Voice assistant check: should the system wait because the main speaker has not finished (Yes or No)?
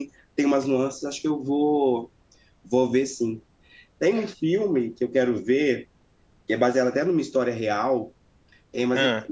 Yes